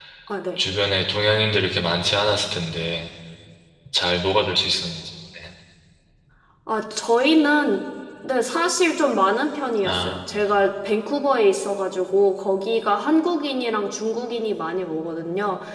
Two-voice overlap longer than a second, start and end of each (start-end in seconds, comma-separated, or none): none